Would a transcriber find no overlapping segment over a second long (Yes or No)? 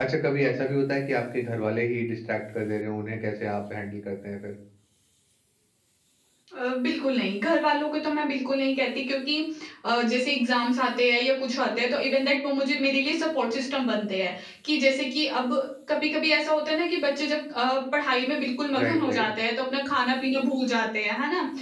Yes